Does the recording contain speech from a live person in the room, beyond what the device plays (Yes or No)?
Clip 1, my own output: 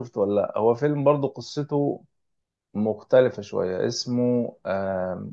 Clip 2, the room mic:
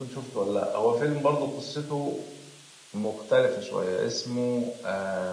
No